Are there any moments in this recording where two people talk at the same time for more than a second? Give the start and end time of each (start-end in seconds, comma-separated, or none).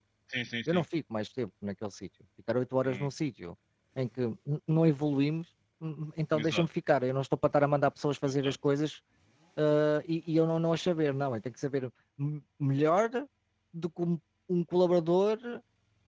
none